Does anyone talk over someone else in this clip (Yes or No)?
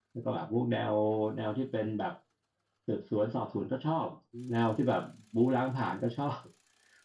No